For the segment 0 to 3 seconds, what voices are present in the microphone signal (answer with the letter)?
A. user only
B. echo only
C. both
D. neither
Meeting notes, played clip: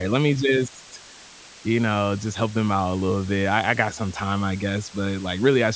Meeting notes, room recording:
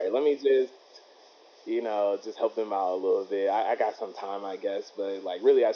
B